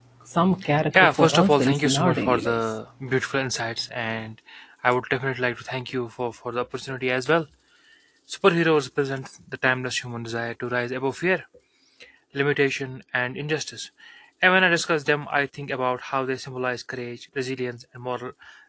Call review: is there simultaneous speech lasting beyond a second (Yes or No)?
Yes